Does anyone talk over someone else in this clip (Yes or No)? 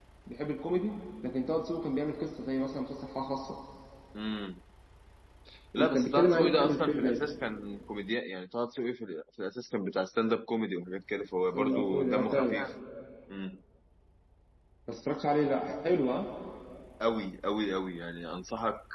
Yes